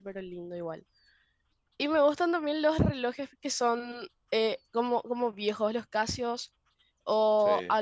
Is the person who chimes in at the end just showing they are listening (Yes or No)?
Yes